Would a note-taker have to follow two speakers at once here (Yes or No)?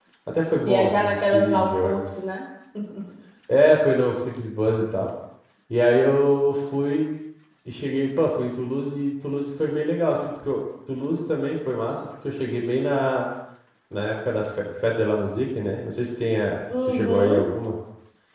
Yes